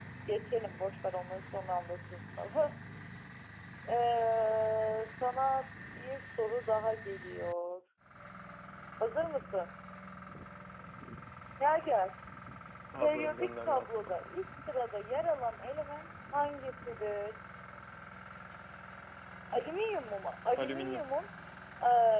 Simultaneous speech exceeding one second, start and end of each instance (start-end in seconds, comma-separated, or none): 13.0-14.3